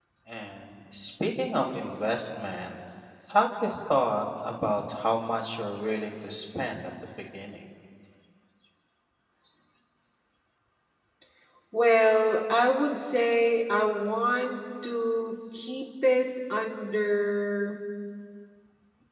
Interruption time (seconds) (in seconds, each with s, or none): none